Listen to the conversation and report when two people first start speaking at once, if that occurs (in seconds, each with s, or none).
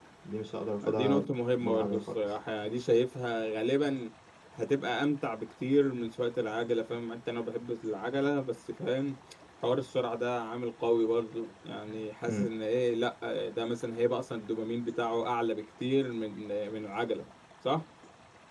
0.9 s